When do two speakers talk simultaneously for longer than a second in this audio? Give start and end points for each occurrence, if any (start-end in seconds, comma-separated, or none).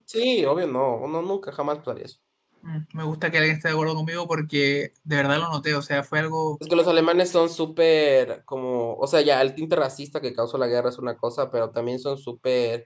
none